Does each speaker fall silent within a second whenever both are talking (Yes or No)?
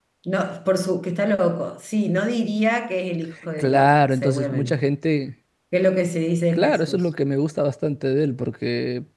No